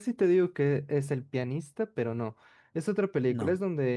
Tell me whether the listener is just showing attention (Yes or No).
Yes